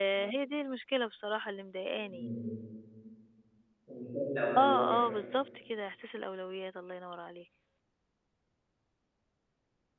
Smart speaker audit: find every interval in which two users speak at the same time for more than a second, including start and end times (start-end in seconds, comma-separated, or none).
none